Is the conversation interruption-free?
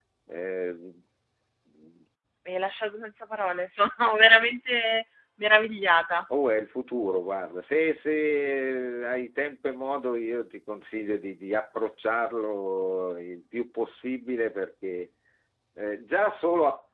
Yes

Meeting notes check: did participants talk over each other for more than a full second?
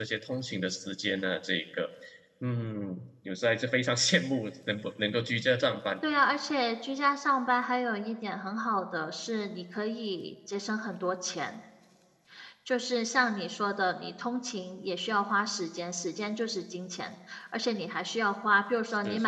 No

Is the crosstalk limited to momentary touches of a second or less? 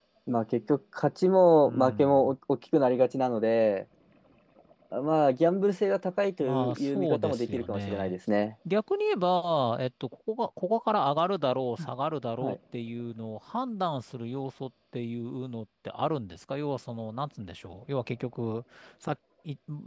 No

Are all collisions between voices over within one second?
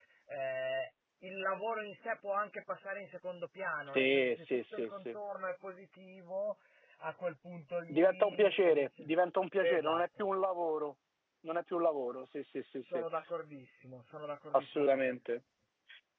No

